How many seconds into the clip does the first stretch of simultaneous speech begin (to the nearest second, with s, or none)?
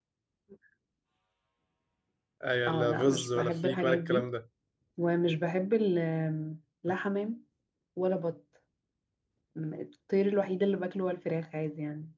3 s